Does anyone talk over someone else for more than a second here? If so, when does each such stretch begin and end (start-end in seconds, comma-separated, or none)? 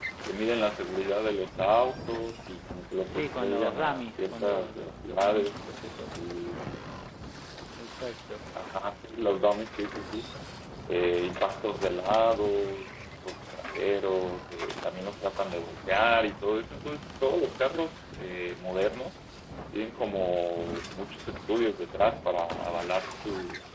3.1-5.6